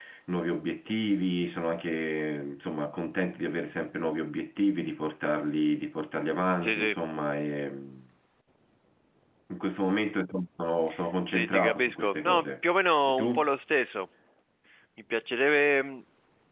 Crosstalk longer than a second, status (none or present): present